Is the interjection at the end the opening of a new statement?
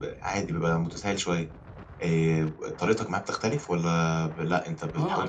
Yes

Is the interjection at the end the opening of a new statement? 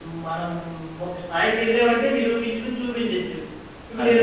No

